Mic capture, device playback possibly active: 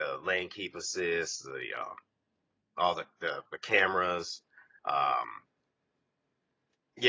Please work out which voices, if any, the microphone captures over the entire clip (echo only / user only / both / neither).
user only